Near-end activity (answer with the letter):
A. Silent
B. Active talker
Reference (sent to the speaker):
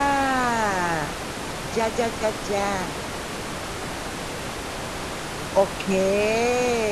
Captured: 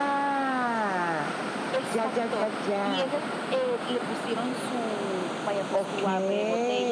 B